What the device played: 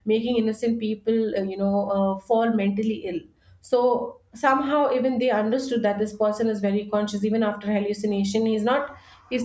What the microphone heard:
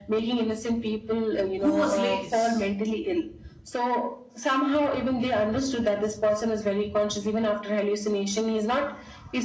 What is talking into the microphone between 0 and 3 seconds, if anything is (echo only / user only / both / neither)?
both